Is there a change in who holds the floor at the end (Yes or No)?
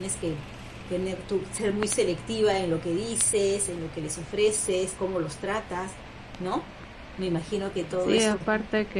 Yes